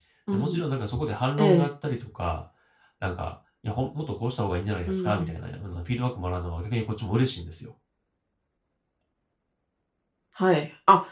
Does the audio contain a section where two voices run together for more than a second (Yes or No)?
No